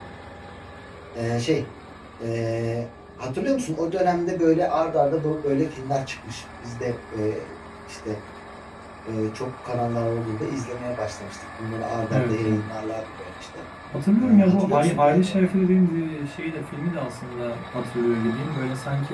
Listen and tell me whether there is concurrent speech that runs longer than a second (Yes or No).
Yes